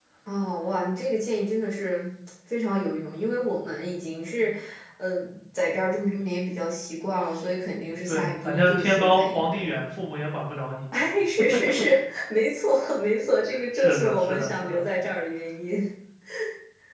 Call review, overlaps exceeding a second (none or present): present